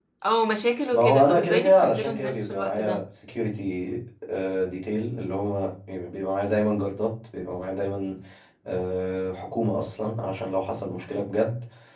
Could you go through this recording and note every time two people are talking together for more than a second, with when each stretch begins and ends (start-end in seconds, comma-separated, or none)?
0.9-3.0